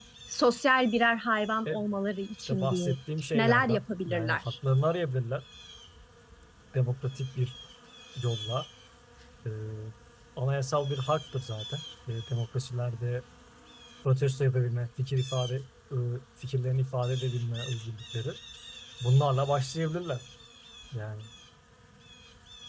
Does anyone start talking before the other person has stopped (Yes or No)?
Yes